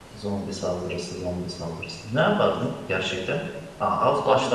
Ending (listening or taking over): listening